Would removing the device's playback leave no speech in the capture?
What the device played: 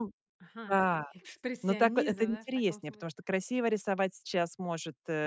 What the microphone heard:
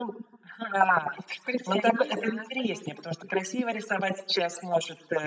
Yes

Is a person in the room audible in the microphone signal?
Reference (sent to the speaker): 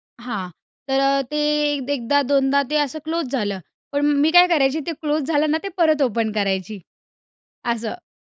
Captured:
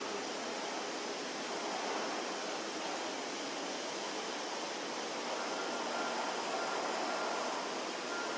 No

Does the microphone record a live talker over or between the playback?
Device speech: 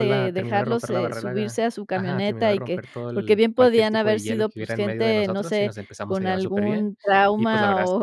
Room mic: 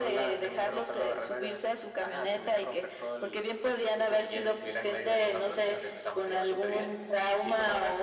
No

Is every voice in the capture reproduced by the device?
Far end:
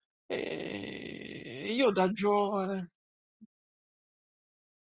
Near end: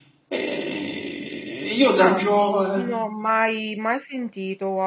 No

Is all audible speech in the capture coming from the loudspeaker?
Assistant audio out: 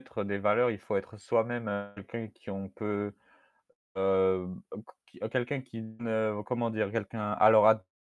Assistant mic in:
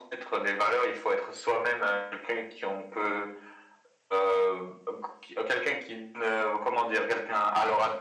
Yes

